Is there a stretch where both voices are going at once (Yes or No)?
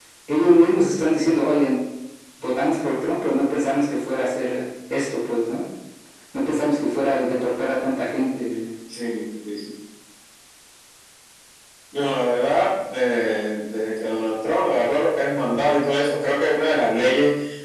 No